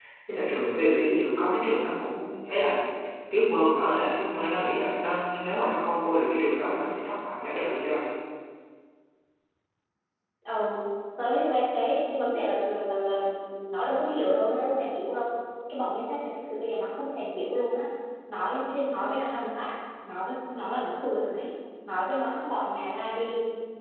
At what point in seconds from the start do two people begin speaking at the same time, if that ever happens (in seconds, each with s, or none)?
none